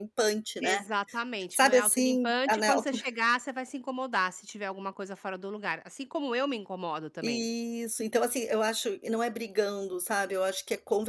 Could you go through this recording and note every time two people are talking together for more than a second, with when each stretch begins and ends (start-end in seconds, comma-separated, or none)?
1.5-3.0